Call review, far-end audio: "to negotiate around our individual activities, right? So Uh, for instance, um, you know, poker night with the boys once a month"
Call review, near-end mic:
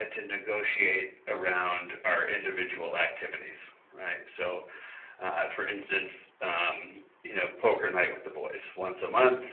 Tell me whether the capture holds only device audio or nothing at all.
Yes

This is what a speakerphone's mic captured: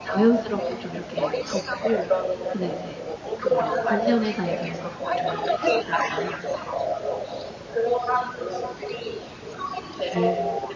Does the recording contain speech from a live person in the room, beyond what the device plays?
Yes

